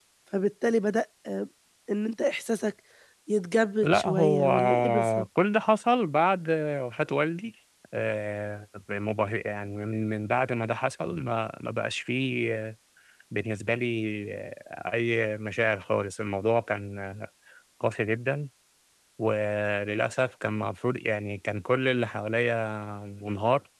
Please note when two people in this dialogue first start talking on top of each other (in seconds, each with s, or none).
3.8 s